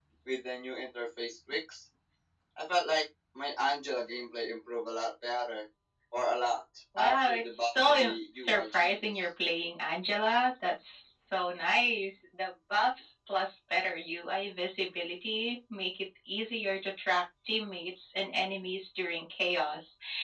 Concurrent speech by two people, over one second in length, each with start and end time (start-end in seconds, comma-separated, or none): 7.0-9.1